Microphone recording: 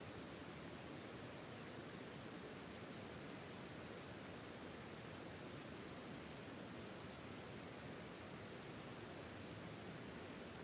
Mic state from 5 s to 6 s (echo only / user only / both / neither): neither